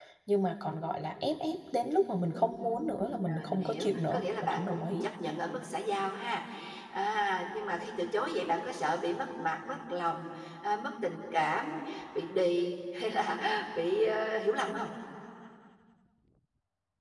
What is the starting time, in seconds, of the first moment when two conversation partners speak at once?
2.5 s

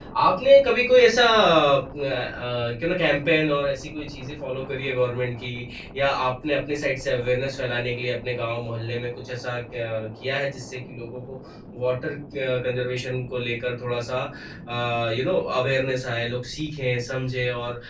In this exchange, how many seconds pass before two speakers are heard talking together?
none

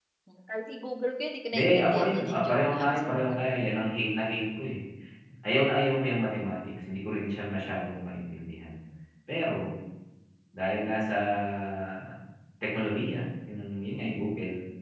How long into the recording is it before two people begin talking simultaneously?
1.5 s

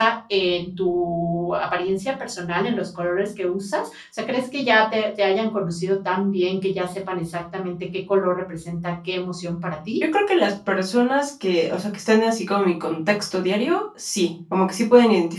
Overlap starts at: none

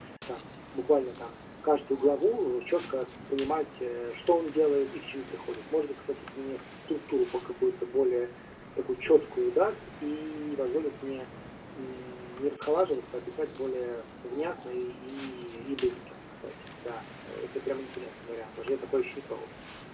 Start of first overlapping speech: none

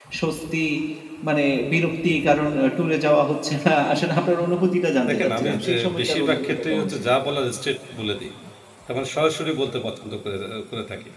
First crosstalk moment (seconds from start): 4.9 s

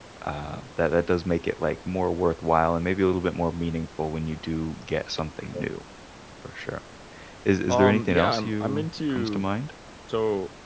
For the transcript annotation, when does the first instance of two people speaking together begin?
7.7 s

